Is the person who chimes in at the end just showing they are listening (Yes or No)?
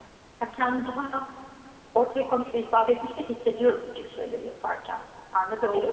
No